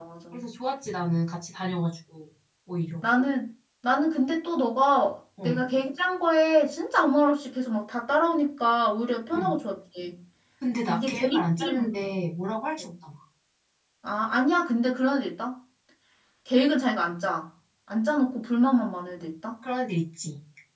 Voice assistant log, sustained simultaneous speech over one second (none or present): present